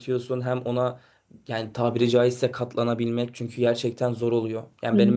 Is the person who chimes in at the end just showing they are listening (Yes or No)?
Yes